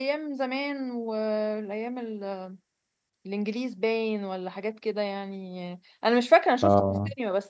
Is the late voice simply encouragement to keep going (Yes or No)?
Yes